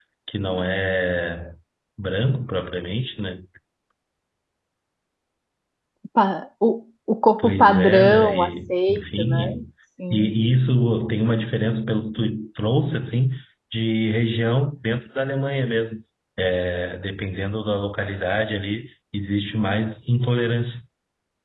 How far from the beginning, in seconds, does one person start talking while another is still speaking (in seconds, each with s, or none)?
7.4 s